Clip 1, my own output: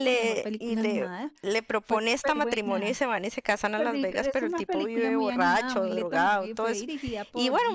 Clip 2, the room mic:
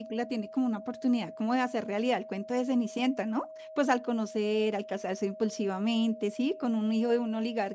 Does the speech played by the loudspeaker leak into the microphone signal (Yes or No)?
No